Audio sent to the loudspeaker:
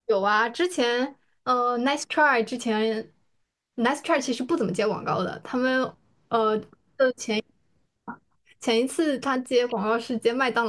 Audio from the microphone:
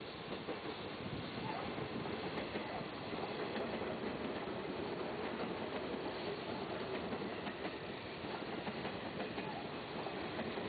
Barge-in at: none

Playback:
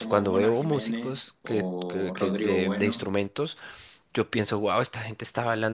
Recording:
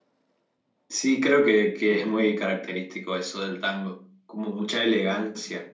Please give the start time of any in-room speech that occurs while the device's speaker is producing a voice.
1 s

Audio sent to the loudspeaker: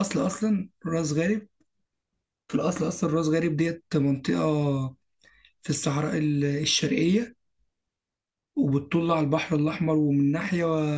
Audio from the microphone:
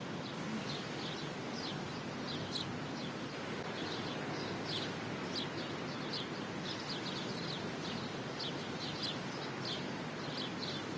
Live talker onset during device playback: none

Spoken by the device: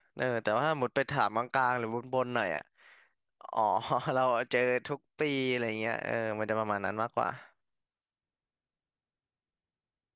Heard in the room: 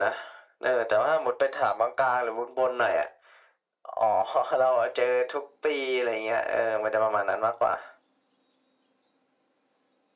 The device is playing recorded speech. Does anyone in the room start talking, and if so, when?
none

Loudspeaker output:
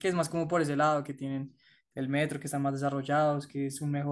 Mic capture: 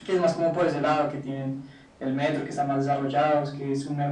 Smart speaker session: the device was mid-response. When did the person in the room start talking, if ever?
none

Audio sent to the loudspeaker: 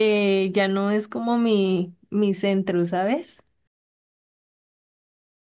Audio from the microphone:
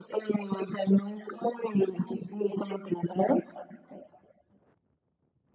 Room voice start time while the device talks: none

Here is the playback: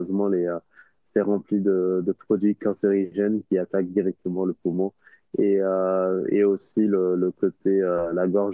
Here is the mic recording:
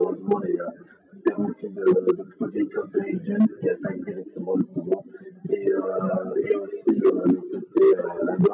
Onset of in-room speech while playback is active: none

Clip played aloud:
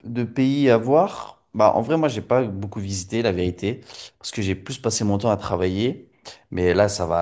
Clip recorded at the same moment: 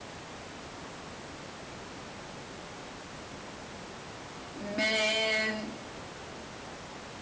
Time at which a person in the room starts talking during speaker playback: 5 s

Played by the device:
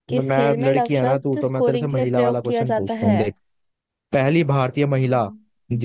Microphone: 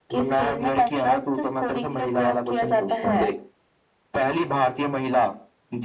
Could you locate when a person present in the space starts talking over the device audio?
none

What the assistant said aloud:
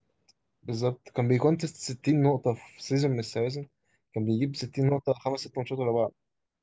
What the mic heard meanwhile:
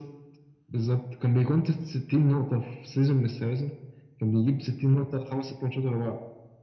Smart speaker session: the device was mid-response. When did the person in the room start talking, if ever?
none

